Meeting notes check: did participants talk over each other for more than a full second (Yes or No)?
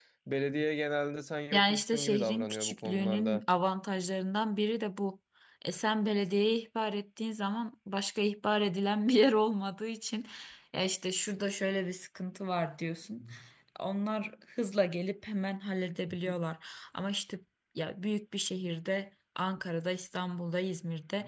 Yes